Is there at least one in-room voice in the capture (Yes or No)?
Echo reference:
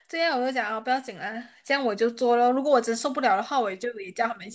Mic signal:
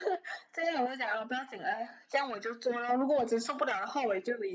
No